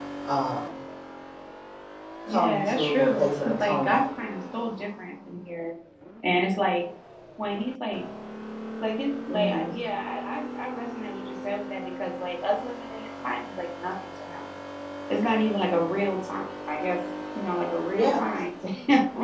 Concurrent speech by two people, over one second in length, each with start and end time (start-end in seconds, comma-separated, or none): 2.3-4.0